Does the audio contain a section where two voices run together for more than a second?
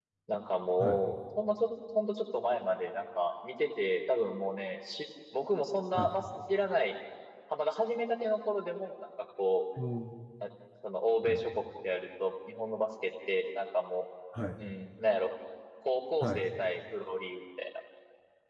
No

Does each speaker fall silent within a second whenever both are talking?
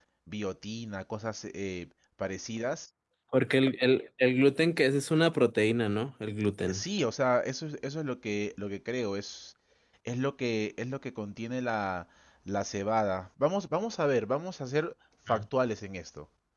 Yes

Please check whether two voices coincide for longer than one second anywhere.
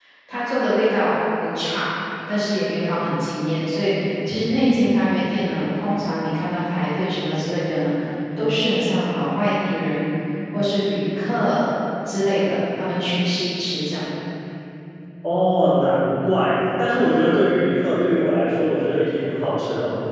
No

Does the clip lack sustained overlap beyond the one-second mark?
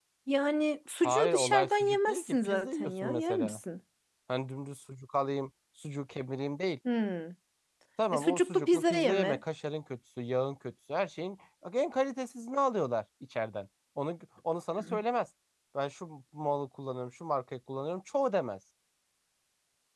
No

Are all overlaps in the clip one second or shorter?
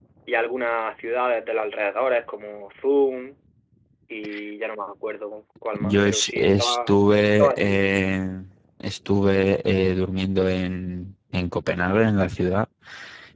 No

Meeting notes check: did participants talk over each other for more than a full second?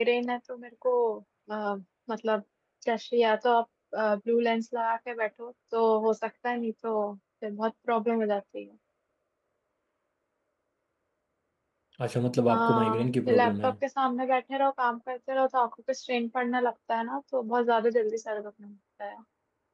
Yes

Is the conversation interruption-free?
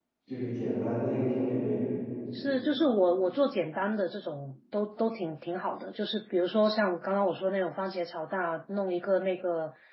Yes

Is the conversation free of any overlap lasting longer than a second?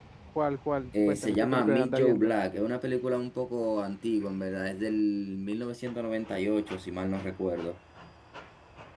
No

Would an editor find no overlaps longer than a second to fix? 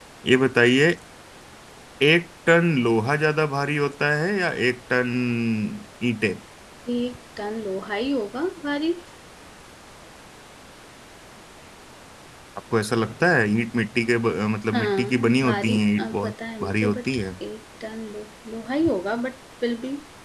No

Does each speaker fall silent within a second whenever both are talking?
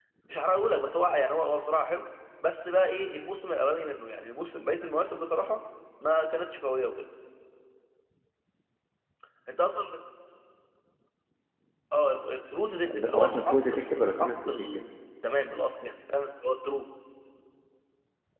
No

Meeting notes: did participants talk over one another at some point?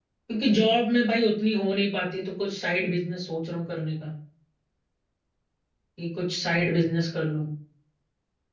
No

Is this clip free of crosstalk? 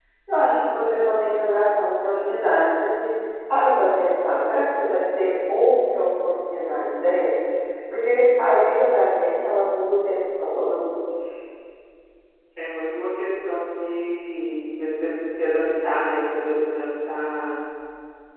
Yes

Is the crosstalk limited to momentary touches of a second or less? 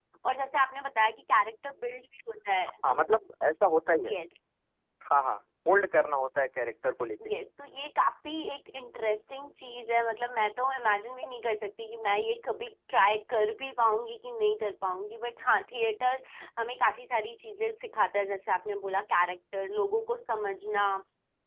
Yes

